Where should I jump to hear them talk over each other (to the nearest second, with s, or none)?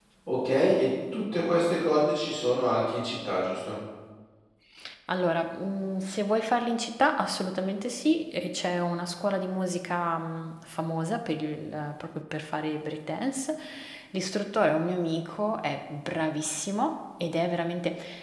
none